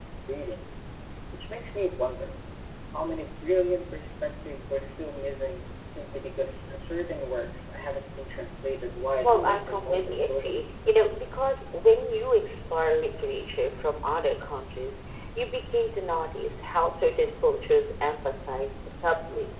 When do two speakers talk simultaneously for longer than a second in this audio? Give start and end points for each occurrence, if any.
9.2-10.6

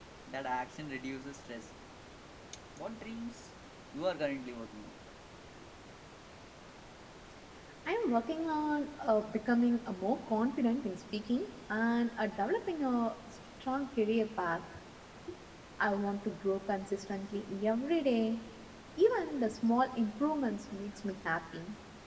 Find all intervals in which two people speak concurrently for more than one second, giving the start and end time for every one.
none

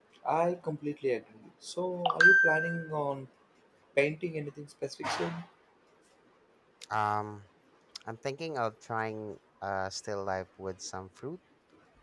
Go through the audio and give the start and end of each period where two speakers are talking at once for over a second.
none

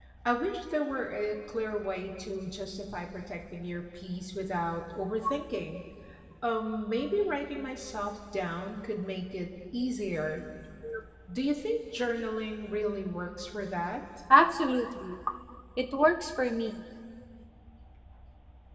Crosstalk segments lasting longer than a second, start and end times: none

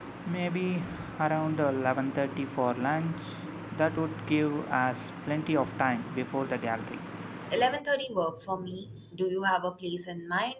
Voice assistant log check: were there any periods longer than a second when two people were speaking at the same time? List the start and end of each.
none

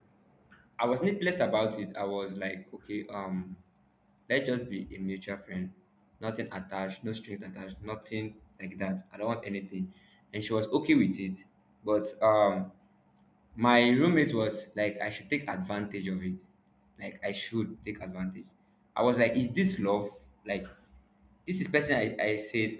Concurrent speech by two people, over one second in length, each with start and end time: none

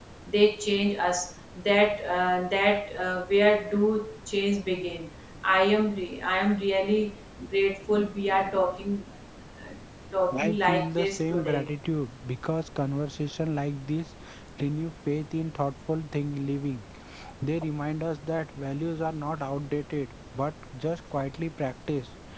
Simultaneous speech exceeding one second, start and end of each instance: 10.3-11.7

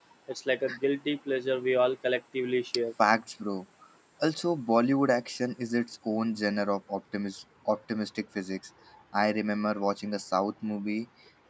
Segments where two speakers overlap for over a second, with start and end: none

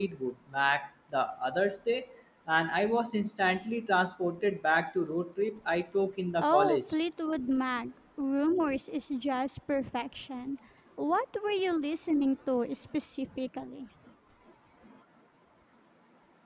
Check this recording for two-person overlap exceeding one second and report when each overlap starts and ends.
none

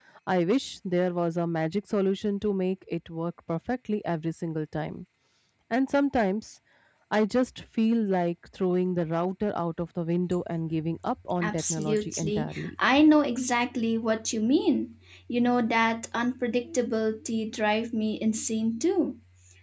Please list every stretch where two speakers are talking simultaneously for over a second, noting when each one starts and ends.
11.4-12.7

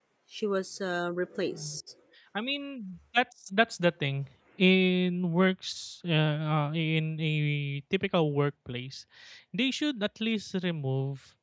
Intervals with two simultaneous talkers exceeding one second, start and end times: none

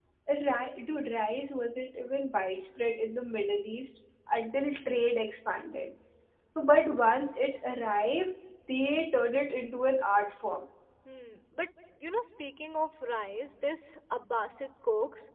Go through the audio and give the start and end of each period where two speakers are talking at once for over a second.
none

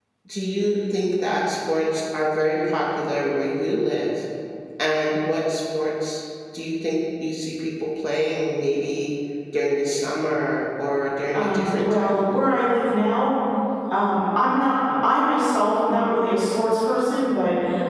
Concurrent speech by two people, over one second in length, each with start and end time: 11.3-12.6

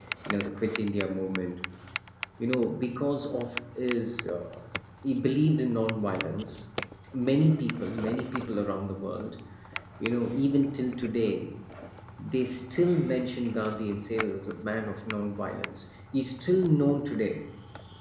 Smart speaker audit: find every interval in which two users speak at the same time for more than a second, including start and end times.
none

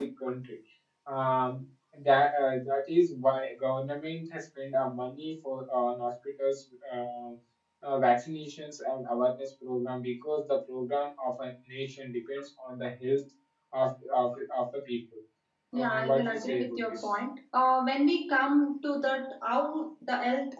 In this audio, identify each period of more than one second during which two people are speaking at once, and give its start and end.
15.8-17.1

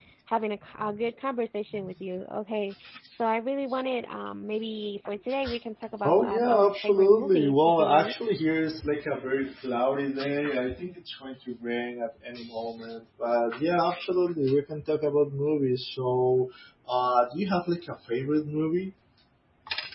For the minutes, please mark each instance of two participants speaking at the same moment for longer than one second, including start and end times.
6.0-8.1

